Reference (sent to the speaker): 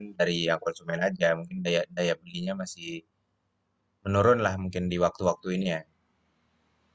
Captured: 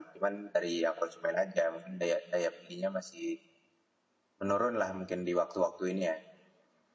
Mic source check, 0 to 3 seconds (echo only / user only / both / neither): echo only